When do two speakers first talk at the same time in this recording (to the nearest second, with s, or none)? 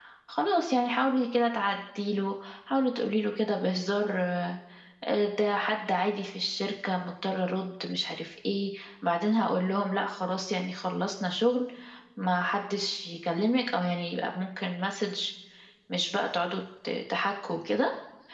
none